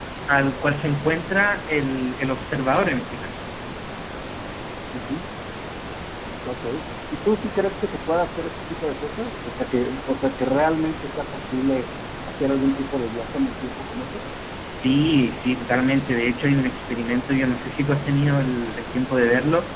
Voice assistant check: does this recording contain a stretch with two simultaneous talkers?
No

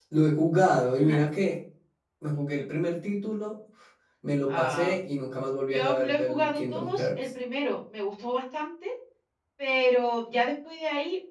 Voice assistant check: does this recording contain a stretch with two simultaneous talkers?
Yes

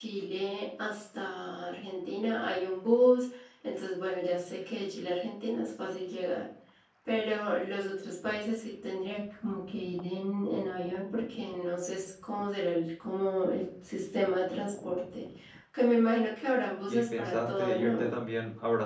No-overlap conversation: No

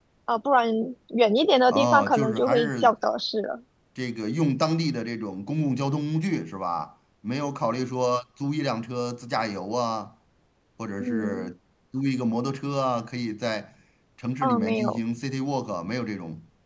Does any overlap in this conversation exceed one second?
Yes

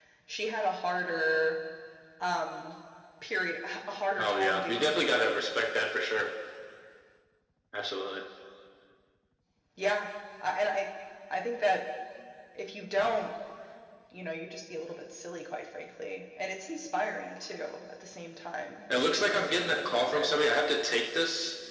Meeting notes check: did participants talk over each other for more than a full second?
Yes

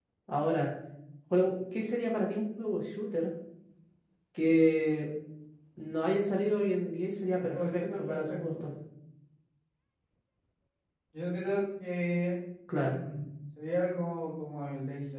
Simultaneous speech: Yes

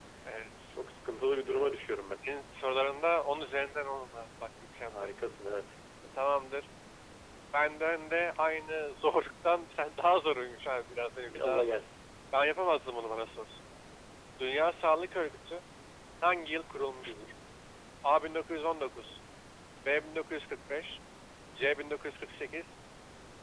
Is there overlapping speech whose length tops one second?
No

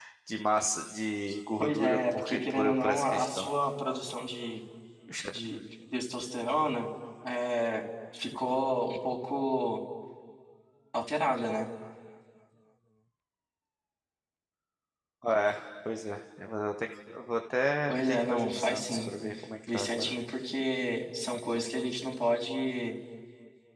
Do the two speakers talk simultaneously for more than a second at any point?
Yes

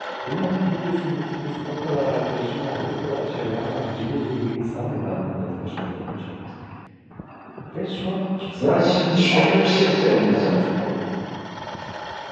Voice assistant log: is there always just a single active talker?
No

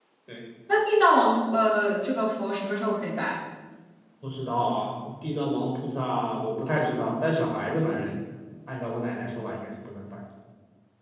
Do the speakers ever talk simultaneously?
No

